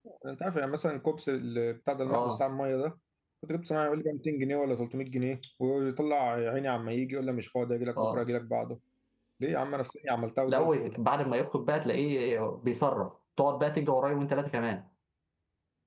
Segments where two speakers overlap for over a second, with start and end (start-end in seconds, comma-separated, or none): none